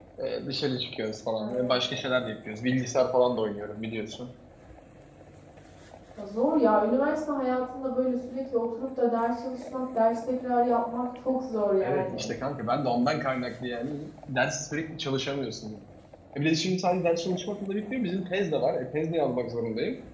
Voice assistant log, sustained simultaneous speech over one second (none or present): none